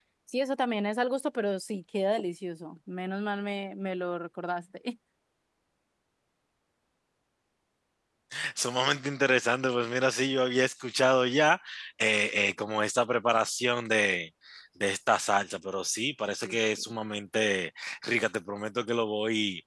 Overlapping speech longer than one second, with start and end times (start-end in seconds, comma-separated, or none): none